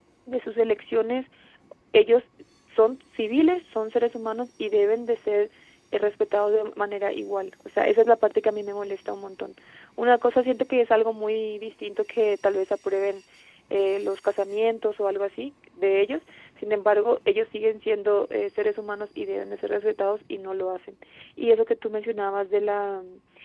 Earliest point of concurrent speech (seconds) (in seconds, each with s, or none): none